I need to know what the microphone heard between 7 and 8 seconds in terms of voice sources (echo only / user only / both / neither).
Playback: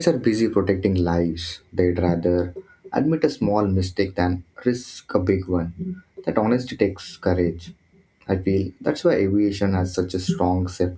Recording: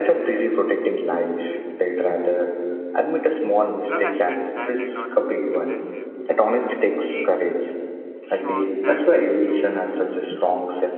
both